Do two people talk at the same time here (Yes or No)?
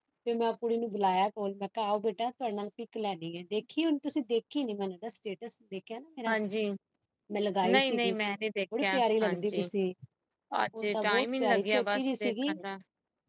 Yes